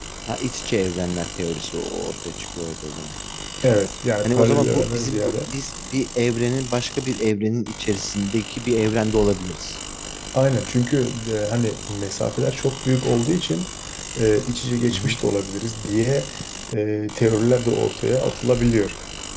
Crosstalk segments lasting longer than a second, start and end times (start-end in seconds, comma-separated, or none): 4.2-5.5